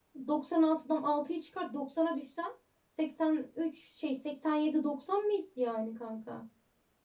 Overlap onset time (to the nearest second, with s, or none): none